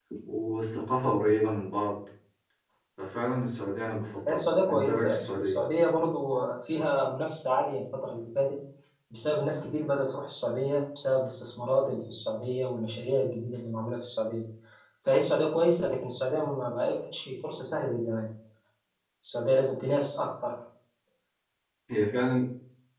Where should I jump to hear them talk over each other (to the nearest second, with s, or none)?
4 s